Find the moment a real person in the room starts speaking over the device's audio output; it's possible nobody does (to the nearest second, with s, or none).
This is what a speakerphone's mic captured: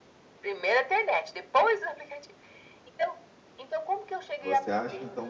4 s